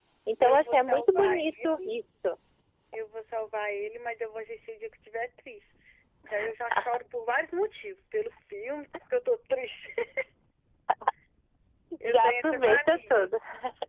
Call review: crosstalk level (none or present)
present